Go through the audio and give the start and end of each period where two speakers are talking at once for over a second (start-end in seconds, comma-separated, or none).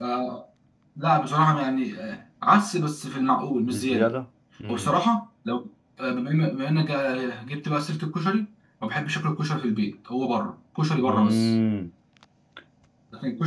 none